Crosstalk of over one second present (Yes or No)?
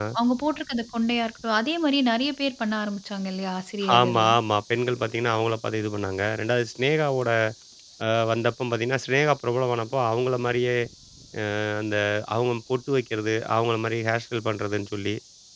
No